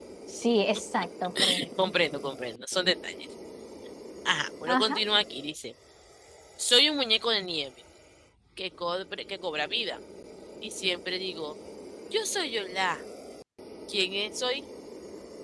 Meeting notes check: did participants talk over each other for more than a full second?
No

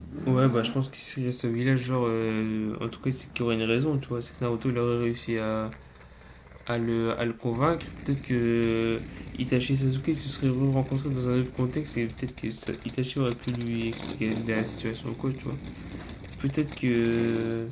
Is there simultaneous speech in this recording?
No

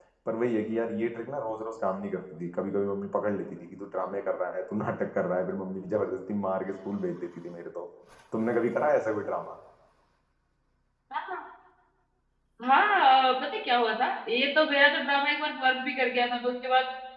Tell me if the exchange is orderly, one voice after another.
Yes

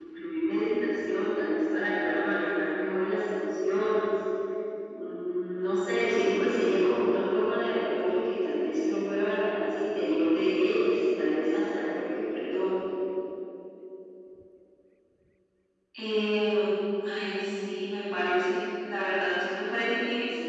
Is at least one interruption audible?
No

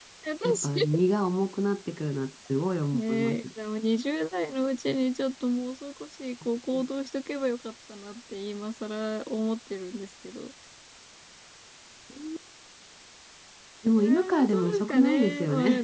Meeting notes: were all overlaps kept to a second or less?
No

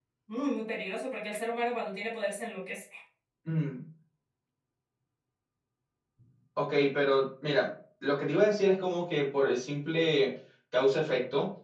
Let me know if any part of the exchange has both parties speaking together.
No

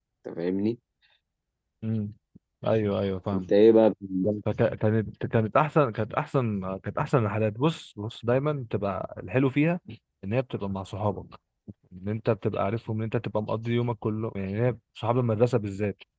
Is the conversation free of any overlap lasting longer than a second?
Yes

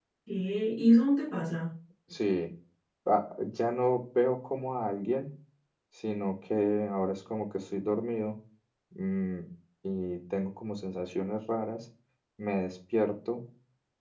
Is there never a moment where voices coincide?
Yes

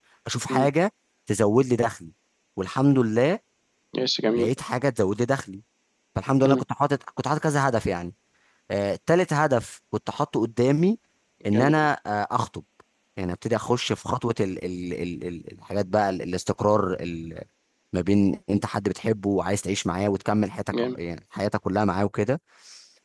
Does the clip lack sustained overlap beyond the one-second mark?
Yes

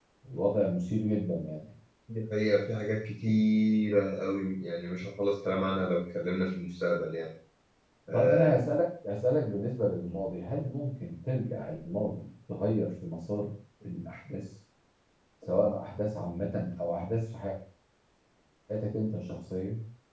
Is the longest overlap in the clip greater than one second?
No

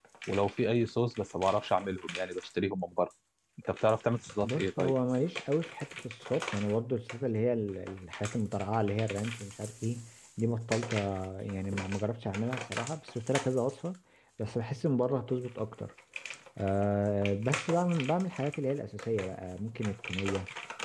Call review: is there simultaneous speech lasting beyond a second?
No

